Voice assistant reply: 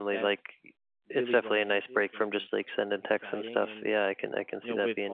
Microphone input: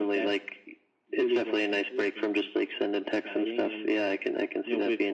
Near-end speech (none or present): none